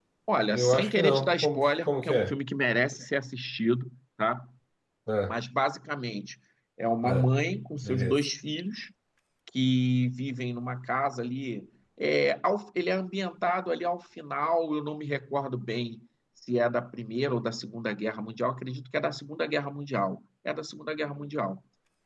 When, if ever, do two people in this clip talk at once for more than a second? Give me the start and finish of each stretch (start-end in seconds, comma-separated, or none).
0.5-2.3